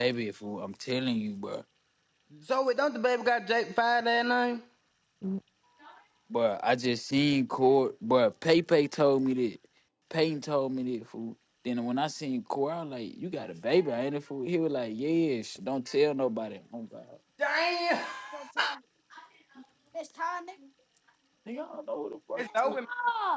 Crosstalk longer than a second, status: none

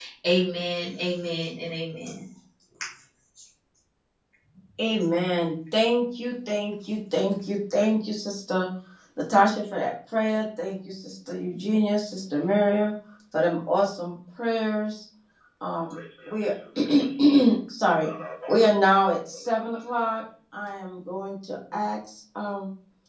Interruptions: none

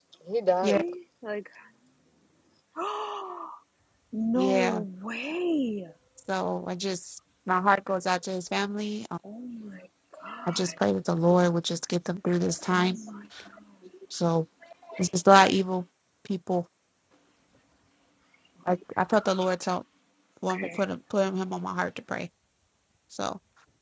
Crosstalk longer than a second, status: none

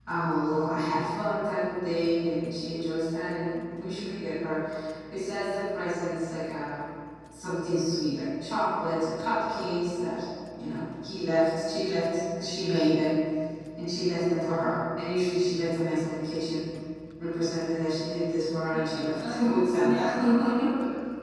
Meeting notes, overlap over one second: present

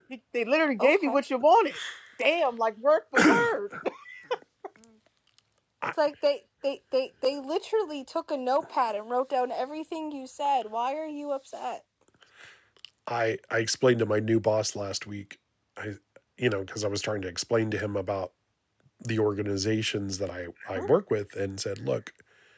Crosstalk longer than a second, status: none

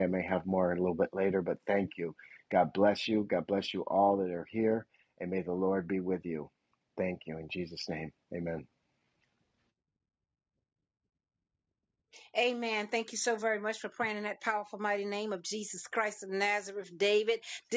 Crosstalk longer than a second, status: none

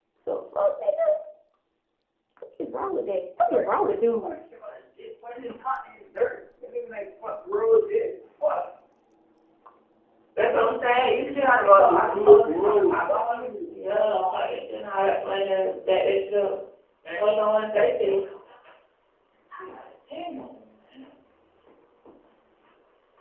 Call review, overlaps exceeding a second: present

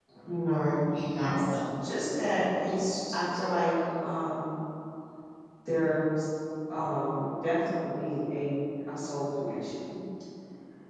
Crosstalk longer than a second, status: present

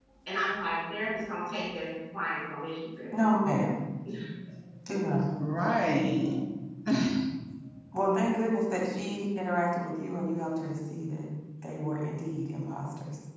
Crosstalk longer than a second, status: none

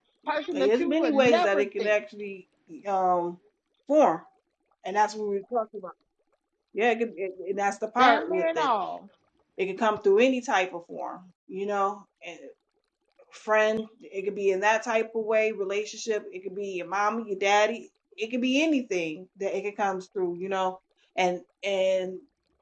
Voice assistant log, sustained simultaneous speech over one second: present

